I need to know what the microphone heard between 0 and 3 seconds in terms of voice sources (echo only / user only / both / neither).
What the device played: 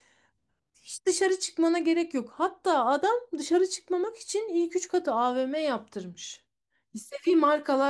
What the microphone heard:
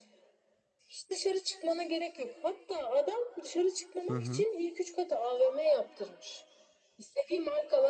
echo only